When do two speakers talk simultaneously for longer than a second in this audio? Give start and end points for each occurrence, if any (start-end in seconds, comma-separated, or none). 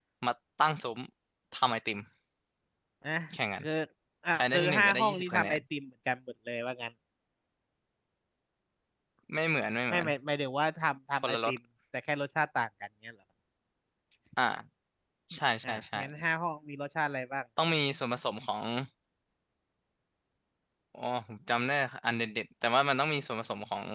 4.3-5.6